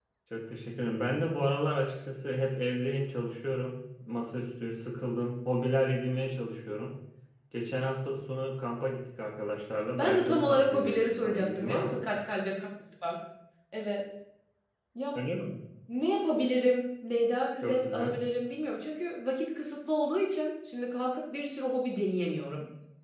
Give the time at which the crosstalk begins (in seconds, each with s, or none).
10.0 s